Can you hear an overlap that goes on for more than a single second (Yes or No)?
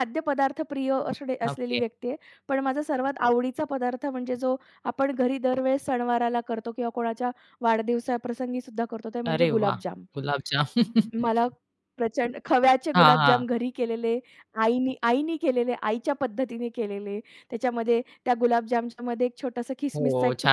No